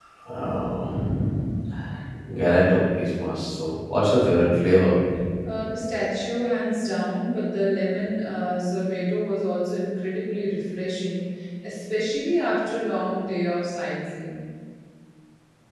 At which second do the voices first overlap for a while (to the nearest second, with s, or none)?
none